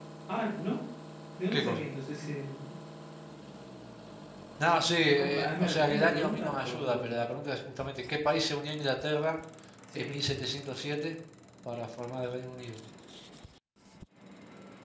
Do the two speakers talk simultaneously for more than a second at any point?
Yes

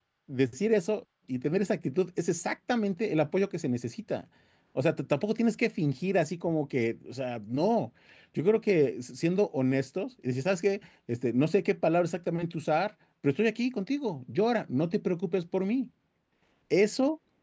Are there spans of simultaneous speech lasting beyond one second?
No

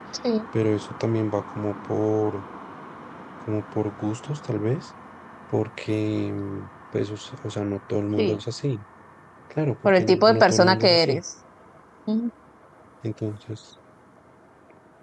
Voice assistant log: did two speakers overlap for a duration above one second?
Yes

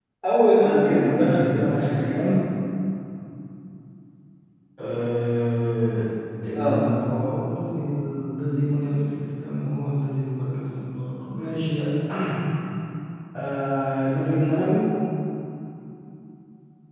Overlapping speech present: Yes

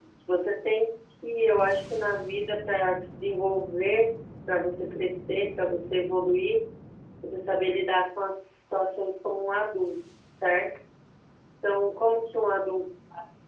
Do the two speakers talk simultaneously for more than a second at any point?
No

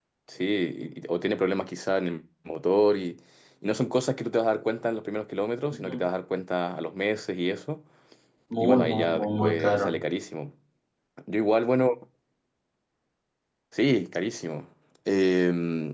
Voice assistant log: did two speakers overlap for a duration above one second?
Yes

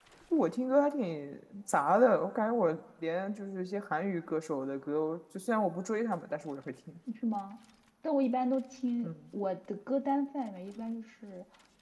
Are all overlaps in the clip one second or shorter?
Yes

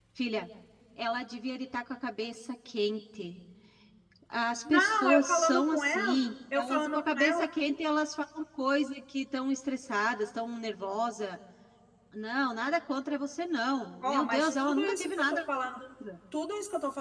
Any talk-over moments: Yes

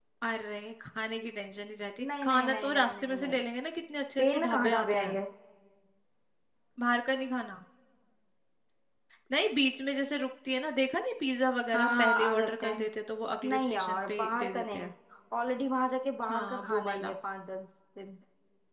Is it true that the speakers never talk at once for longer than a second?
No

